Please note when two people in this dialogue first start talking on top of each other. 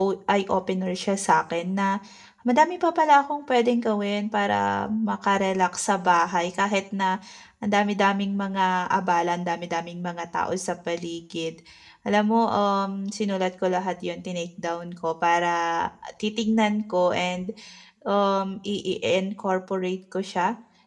none

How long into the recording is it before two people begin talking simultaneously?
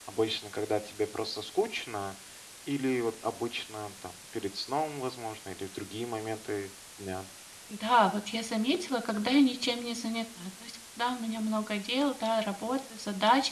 none

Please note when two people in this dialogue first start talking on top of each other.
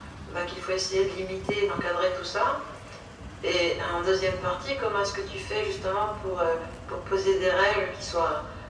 none

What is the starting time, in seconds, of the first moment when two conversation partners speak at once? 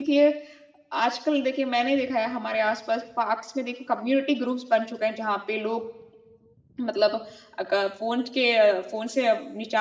none

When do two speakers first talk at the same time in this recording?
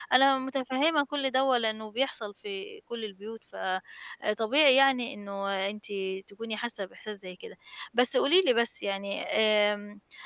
none

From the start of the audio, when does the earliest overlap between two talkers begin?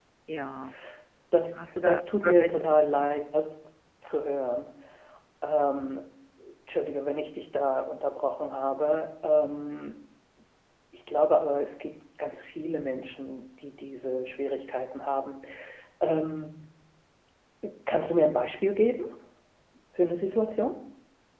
1.8 s

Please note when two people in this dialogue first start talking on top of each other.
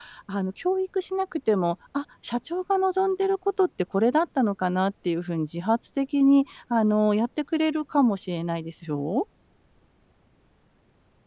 none

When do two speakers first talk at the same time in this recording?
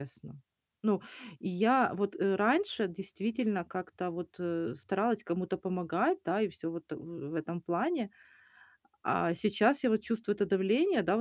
none

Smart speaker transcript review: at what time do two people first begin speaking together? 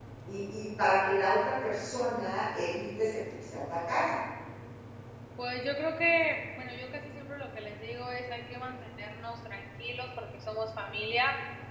none

